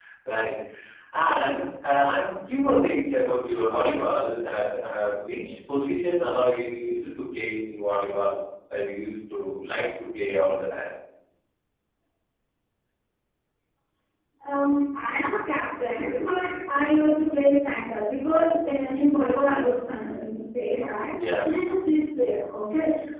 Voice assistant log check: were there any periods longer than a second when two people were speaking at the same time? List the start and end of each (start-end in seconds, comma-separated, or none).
none